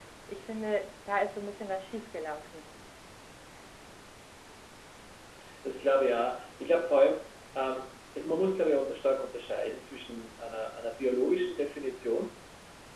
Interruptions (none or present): none